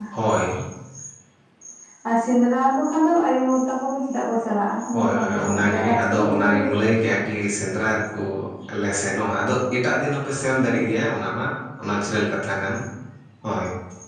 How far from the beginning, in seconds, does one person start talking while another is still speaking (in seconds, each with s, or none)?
4.9 s